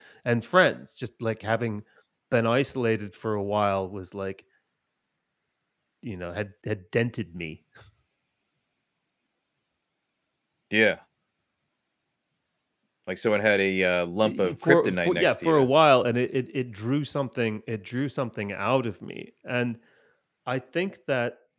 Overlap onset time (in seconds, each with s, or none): 14.2 s